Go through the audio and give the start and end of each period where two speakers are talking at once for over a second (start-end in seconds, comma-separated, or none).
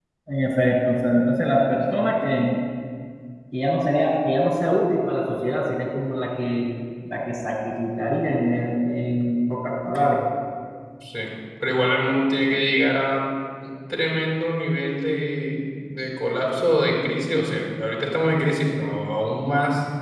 none